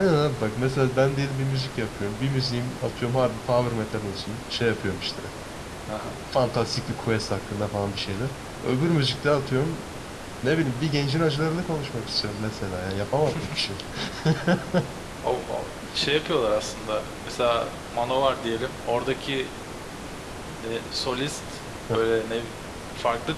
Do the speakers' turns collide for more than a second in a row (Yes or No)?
No